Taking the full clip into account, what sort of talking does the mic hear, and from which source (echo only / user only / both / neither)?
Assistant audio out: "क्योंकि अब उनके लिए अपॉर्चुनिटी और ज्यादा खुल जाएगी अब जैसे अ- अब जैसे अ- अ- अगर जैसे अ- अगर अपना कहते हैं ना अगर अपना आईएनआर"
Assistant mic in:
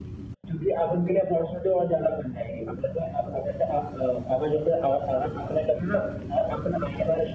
echo only